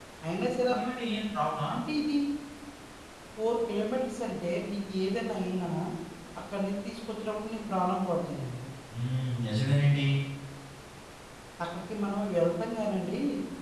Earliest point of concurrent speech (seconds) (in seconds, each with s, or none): none